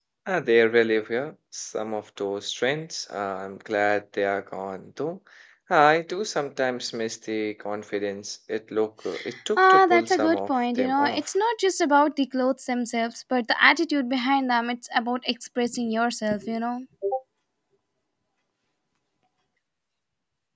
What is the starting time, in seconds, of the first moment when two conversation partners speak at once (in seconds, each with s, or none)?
9.6 s